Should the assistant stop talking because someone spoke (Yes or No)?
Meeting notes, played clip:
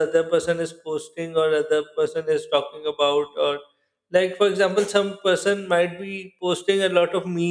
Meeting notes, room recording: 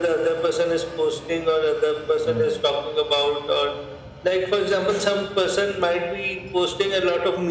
Yes